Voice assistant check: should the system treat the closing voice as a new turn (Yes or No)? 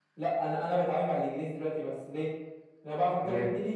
No